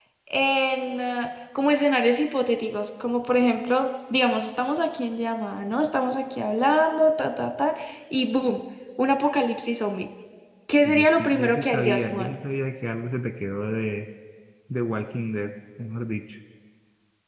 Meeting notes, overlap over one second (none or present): present